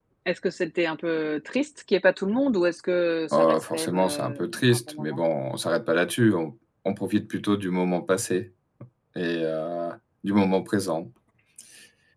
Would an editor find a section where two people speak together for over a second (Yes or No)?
Yes